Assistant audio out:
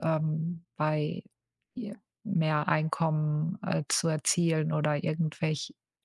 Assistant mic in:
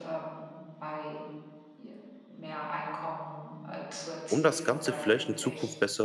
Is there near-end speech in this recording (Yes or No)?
Yes